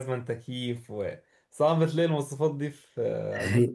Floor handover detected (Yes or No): Yes